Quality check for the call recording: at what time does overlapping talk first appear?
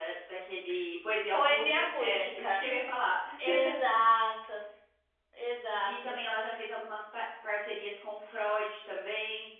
1.3 s

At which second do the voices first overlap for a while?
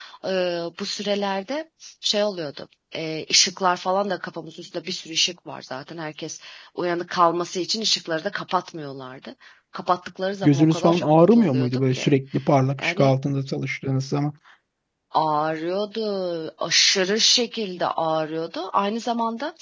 10.4 s

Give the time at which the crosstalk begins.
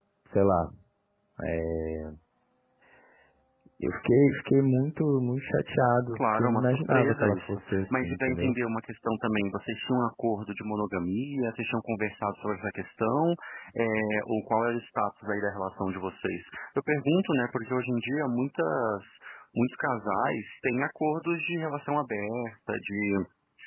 6.1 s

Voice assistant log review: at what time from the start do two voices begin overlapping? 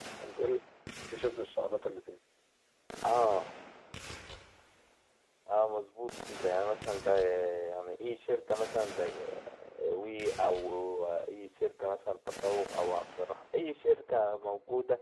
none

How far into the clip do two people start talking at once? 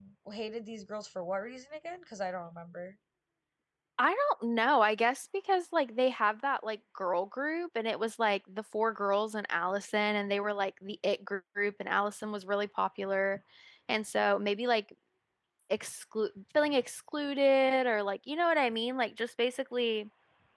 none

